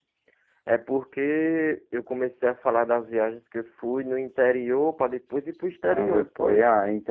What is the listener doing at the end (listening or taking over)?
taking over